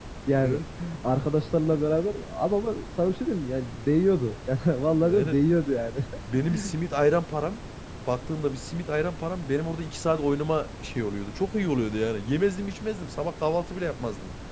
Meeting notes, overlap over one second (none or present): none